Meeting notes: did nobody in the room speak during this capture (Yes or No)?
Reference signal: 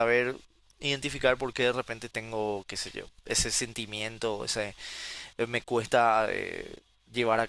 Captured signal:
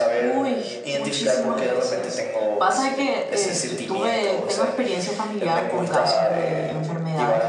No